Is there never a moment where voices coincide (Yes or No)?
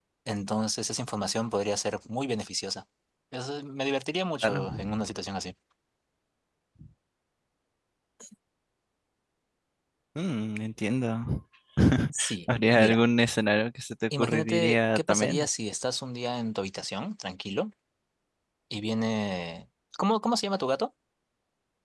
No